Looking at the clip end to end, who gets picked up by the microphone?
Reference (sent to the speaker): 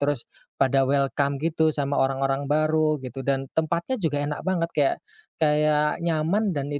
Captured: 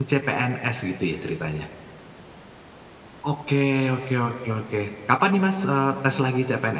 user only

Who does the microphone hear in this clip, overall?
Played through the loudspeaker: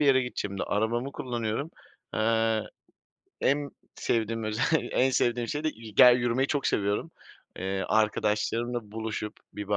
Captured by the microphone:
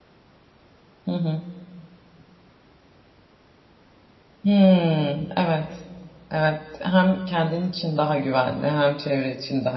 user only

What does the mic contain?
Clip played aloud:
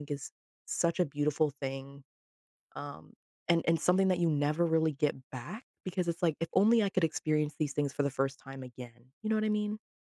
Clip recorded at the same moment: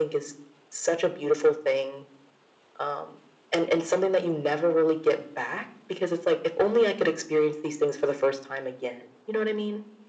echo only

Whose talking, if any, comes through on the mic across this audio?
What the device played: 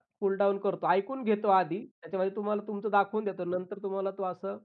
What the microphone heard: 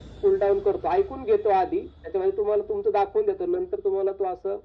echo only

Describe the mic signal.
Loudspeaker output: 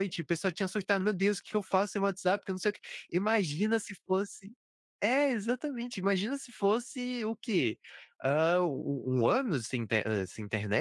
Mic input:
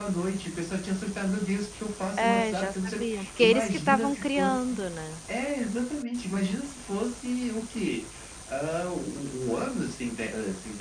both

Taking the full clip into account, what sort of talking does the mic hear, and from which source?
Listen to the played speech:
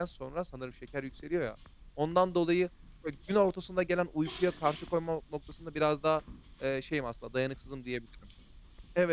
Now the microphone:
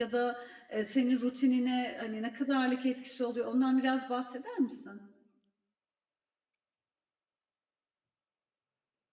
user only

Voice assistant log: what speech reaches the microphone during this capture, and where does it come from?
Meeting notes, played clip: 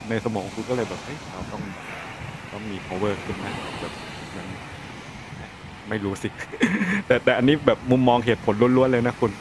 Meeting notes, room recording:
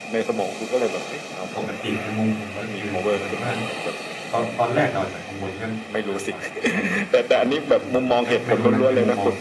both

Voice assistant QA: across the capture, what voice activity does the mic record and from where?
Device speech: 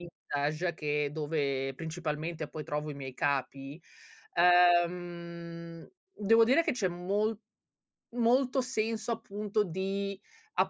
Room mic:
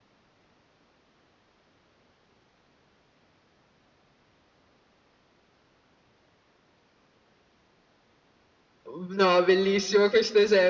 user only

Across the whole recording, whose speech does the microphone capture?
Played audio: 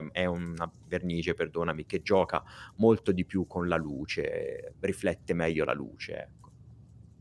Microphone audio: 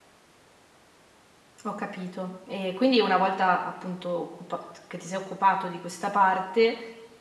user only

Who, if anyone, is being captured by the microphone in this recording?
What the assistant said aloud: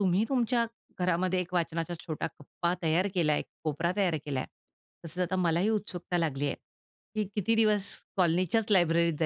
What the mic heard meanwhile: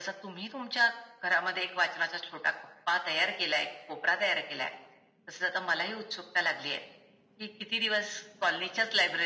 echo only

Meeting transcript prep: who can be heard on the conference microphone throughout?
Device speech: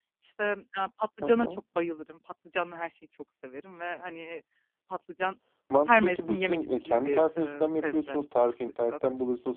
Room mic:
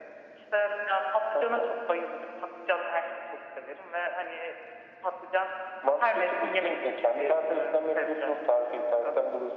echo only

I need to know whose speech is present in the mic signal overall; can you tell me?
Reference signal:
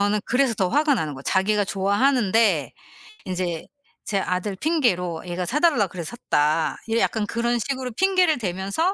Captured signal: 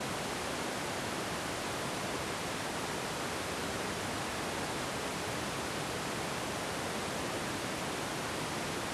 neither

